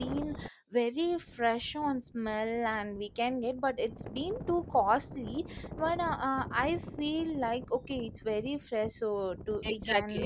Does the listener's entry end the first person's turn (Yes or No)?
Yes